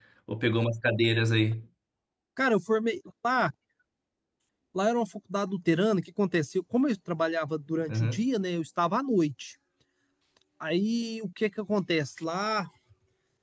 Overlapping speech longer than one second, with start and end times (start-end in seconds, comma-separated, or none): none